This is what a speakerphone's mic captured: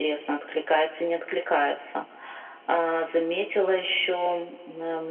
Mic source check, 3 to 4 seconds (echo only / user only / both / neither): echo only